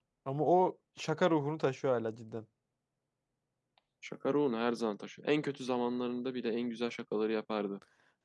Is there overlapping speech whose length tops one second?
No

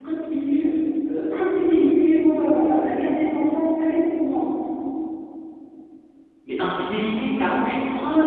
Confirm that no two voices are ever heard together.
Yes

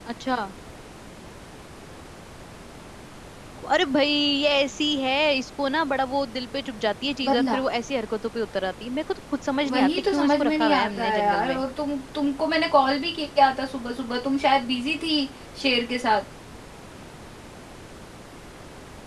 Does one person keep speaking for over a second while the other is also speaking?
Yes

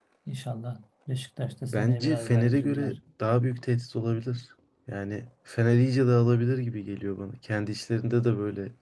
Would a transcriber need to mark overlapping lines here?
Yes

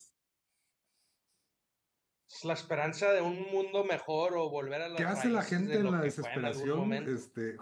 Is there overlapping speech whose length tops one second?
Yes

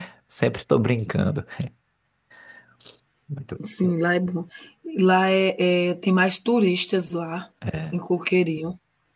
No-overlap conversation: Yes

